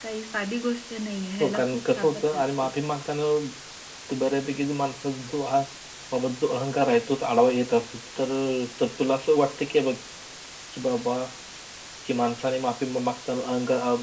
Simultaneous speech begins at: 1.4 s

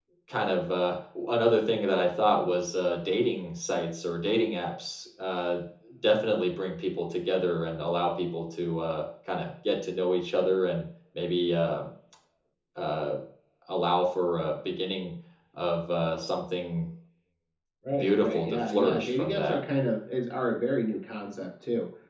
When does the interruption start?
18.0 s

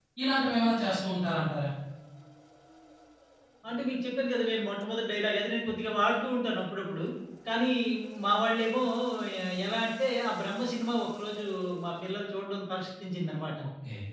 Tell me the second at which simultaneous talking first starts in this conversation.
none

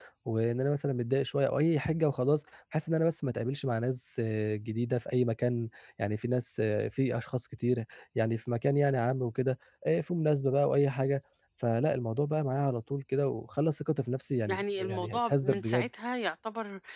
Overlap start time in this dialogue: 14.5 s

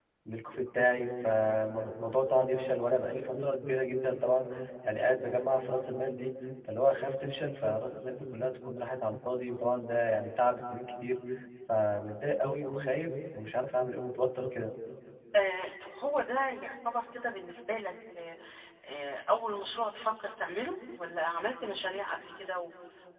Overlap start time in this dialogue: none

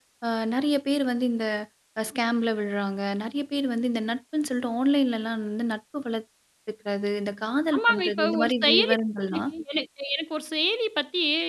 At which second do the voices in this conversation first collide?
7.7 s

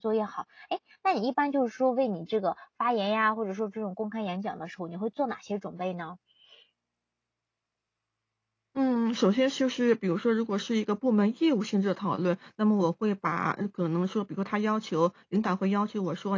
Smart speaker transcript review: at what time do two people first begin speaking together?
none

